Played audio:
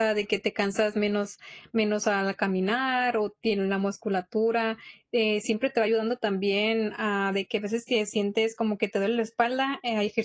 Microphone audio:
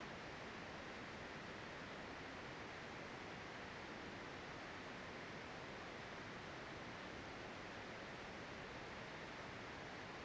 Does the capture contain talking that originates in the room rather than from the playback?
No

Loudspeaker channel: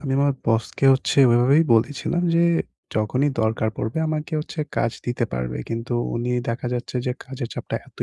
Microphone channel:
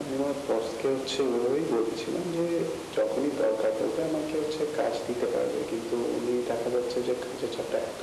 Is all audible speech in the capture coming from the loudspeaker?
Yes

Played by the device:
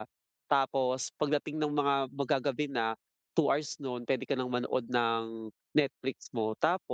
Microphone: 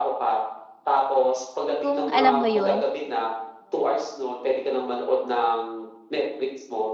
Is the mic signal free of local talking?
No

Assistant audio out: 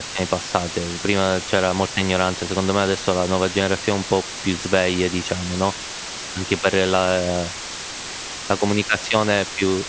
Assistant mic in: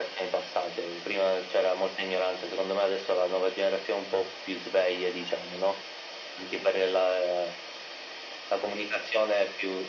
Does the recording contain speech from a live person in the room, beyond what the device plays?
No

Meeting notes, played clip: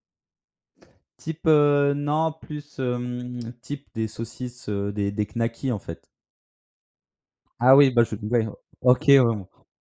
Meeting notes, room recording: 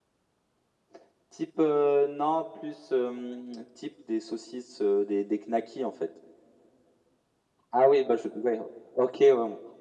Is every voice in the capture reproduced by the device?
Yes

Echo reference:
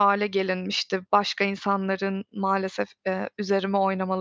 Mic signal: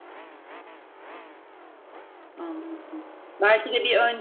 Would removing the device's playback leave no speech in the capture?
No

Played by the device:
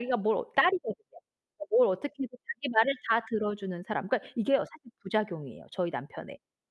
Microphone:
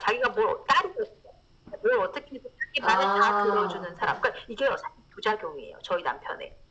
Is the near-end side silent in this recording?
No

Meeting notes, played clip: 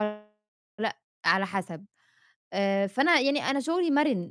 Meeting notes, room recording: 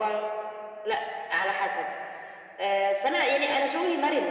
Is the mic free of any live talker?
Yes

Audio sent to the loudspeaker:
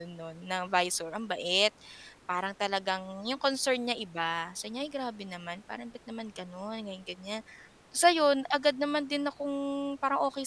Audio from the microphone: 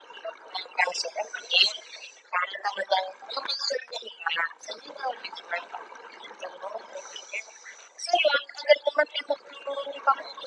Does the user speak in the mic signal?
No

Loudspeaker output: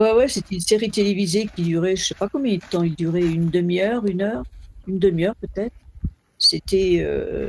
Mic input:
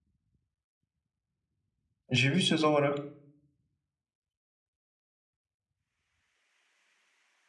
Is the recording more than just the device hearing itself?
Yes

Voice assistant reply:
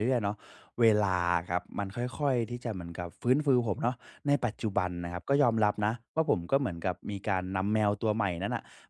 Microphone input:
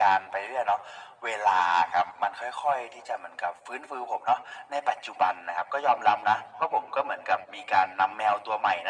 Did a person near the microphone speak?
No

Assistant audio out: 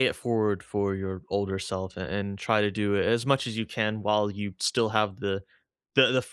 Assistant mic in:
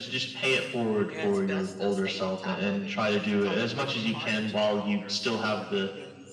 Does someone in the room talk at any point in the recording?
Yes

